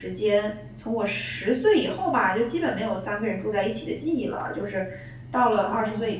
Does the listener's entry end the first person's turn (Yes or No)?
No